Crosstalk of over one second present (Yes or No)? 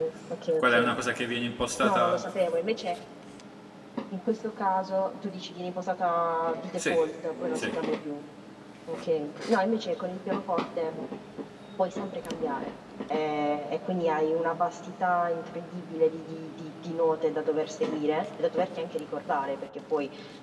No